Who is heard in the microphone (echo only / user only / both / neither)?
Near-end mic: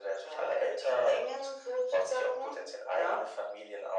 echo only